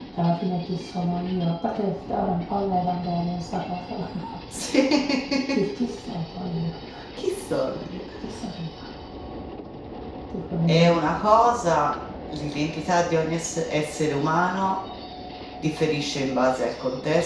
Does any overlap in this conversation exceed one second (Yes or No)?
No